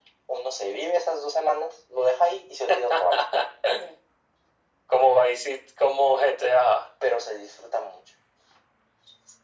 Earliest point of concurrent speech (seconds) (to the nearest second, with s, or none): none